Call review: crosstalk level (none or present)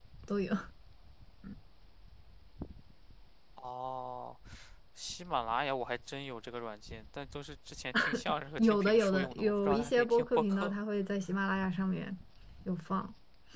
present